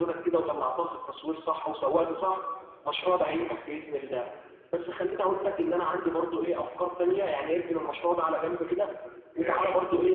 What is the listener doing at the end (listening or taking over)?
listening